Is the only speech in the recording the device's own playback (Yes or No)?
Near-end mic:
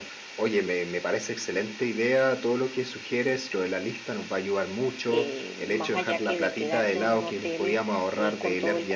No